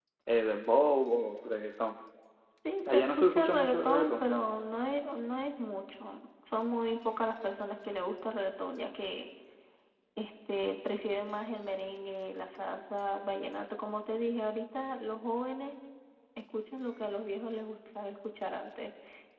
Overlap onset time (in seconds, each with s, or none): 2.8 s